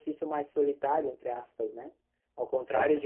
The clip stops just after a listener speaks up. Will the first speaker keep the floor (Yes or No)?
Yes